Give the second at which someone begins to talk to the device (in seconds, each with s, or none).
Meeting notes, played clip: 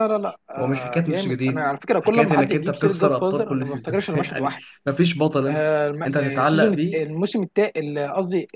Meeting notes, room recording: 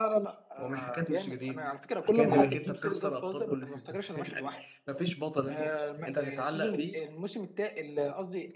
2.3 s